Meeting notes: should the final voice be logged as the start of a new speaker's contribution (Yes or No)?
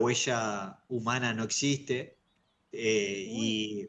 No